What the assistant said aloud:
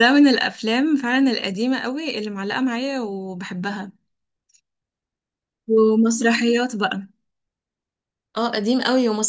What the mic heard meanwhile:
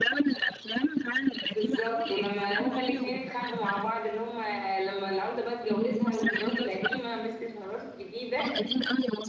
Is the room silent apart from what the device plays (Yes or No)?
No